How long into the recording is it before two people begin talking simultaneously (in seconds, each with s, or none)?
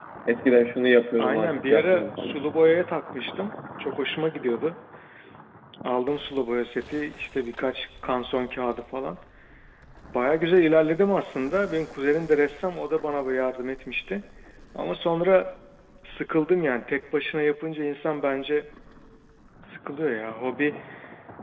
1.2 s